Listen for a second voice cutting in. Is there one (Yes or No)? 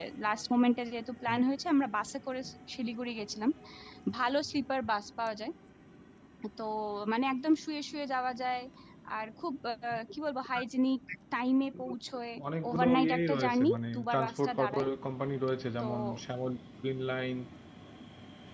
Yes